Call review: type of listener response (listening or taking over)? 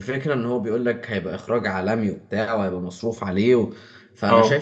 listening